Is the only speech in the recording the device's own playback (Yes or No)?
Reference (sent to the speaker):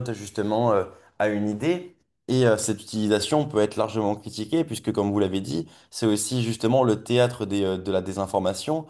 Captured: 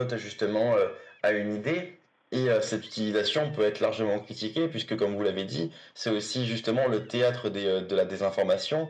Yes